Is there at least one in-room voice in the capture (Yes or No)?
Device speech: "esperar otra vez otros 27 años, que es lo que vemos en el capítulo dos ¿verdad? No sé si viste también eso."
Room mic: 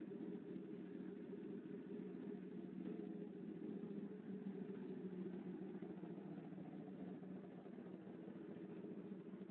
No